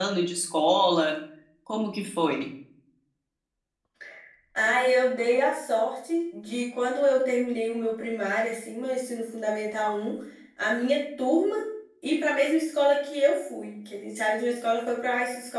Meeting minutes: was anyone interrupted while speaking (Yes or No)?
No